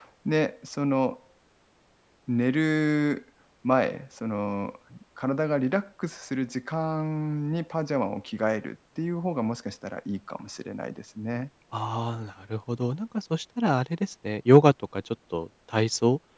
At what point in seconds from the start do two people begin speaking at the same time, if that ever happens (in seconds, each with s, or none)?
none